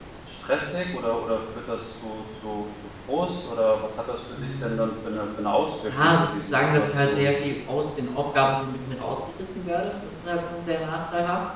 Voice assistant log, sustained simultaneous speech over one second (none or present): present